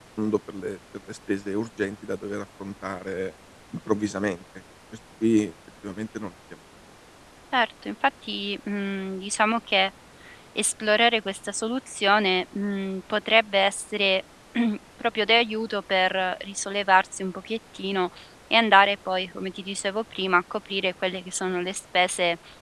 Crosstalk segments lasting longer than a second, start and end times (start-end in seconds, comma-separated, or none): none